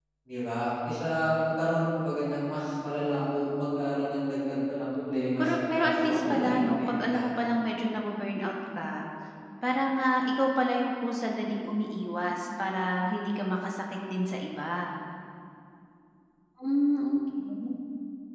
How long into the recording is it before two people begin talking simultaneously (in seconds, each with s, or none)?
5.4 s